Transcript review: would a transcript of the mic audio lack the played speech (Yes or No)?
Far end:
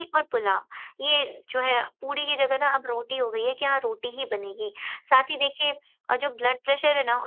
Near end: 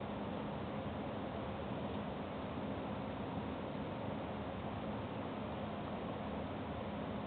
Yes